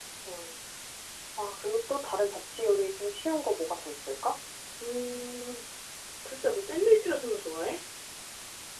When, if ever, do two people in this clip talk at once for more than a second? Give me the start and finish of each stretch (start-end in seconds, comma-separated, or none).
none